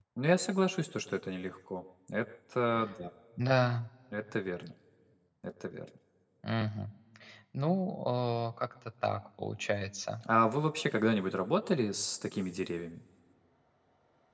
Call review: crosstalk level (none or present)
none